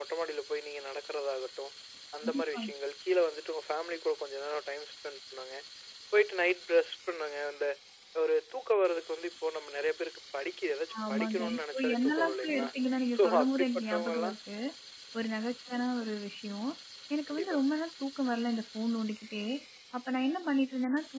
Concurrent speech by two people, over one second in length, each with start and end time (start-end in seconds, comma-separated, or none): 11.1-12.7, 13.2-14.4